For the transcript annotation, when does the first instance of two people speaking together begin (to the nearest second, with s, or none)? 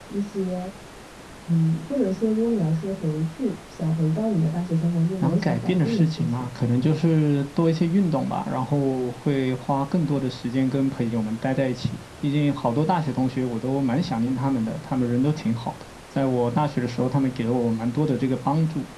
5 s